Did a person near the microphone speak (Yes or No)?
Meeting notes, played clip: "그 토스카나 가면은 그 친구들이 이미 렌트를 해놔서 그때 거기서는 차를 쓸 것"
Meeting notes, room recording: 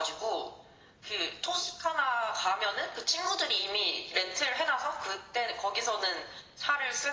No